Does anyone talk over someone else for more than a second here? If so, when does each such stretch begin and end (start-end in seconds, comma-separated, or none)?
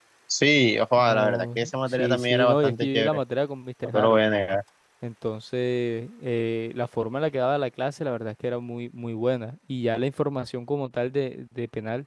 1.0-3.2